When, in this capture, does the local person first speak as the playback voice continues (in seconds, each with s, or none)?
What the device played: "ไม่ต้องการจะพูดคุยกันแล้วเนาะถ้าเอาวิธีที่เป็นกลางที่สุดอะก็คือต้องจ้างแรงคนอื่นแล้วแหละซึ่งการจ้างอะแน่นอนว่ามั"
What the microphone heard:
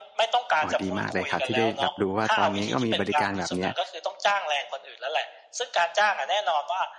0.6 s